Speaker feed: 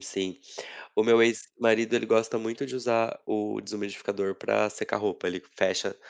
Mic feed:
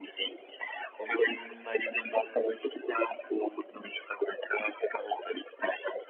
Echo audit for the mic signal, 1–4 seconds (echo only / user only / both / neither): both